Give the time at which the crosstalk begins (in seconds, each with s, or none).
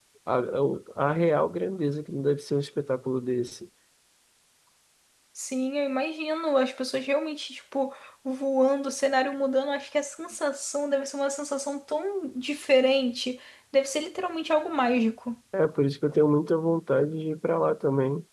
none